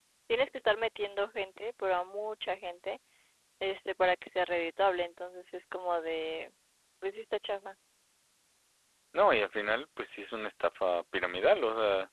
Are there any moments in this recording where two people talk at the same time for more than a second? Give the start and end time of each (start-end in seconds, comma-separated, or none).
none